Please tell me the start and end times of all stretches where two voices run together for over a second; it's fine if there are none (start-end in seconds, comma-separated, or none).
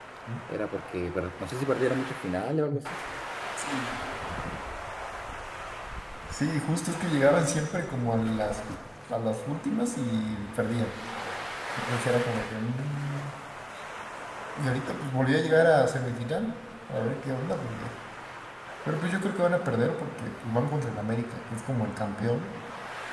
none